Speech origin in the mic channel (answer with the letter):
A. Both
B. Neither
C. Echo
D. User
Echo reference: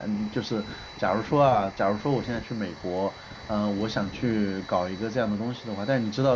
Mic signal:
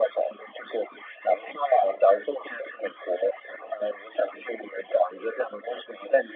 C